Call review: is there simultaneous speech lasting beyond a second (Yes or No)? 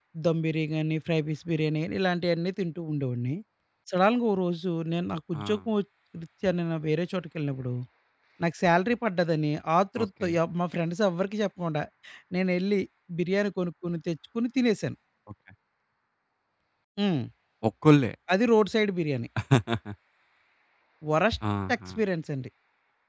No